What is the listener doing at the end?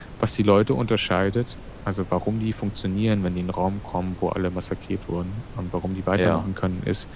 listening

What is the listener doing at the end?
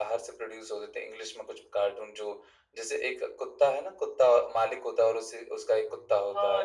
taking over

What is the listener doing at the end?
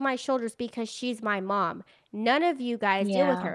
listening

